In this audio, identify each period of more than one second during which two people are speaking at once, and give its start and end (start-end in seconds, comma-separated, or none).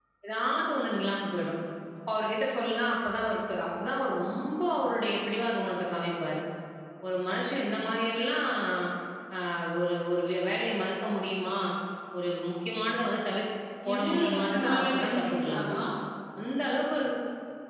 13.9-15.7